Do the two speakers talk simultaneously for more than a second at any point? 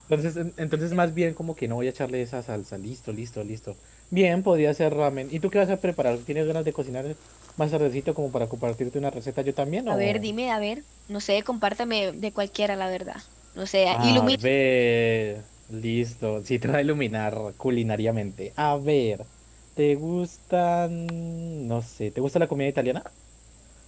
No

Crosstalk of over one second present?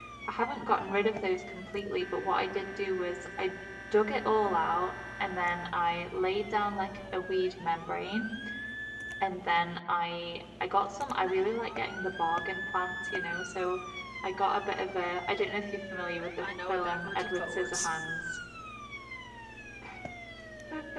Yes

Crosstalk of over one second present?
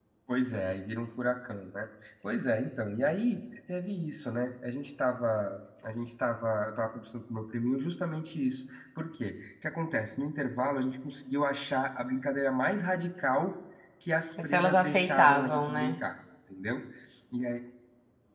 Yes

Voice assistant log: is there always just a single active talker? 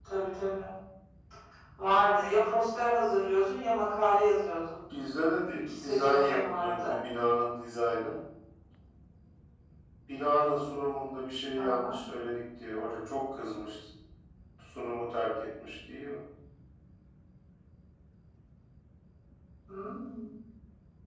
No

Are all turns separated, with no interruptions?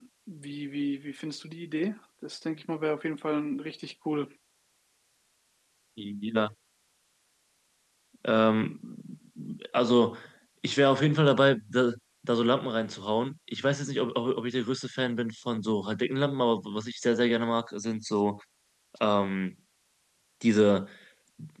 Yes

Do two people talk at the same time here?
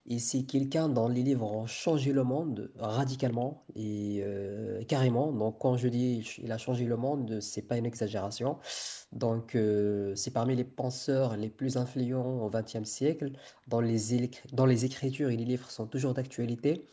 No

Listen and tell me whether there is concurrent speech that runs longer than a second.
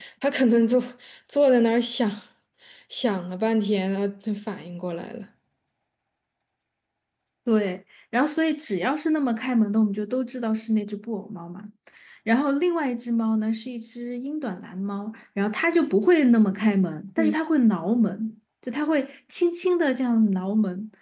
No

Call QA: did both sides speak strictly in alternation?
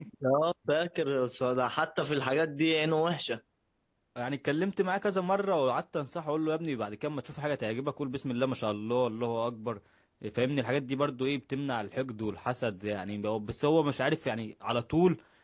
Yes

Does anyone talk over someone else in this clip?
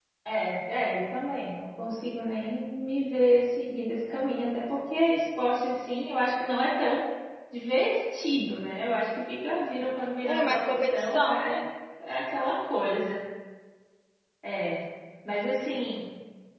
Yes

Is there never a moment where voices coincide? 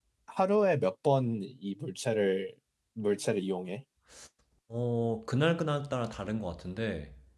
Yes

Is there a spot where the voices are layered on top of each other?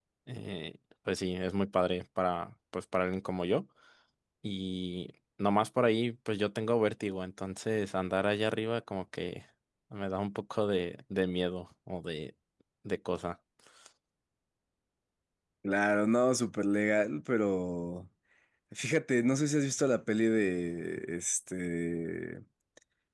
No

